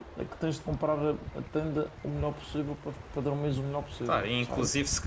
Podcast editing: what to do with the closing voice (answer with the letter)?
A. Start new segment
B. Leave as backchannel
A